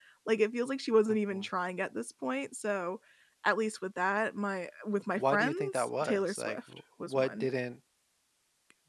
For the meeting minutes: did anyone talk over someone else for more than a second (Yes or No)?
Yes